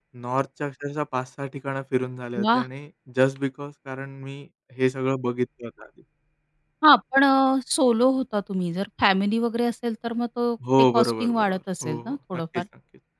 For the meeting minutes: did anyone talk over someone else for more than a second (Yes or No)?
Yes